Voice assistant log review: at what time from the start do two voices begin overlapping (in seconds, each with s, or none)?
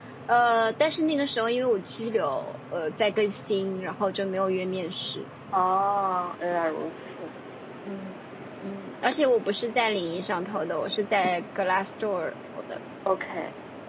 none